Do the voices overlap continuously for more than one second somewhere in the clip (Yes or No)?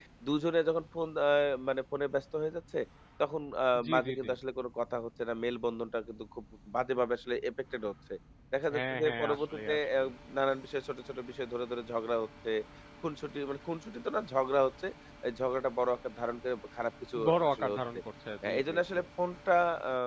Yes